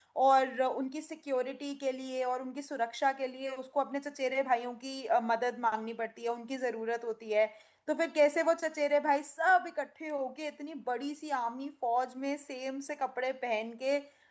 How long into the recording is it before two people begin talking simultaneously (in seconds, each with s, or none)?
none